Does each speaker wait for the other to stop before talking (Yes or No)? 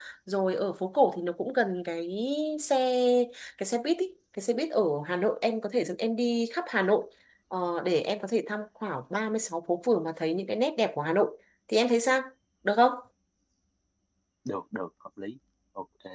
Yes